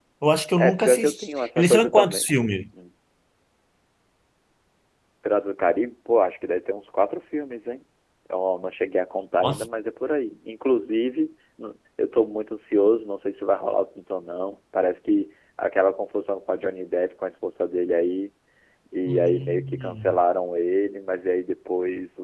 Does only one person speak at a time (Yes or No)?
No